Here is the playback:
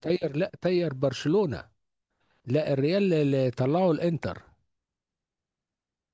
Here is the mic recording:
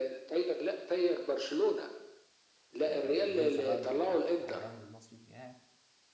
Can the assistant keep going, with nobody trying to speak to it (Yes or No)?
No